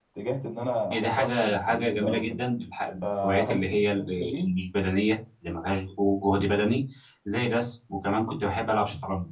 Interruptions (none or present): present